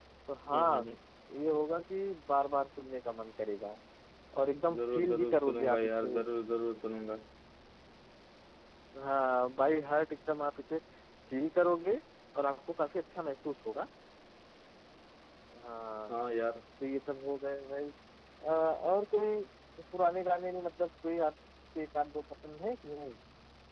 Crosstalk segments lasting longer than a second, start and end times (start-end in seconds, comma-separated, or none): 4.8-6.2